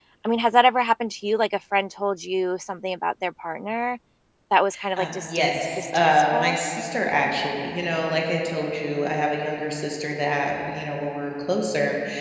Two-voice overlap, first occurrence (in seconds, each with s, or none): 5.0 s